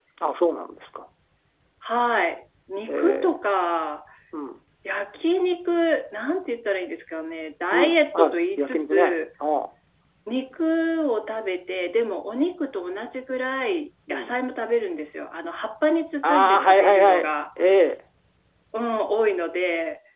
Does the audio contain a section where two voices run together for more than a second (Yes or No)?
Yes